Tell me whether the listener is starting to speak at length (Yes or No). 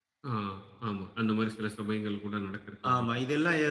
Yes